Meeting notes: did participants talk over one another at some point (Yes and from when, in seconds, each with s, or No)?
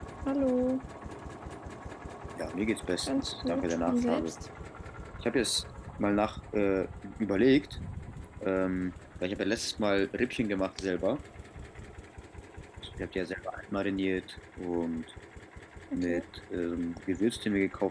Yes, from 3.1 s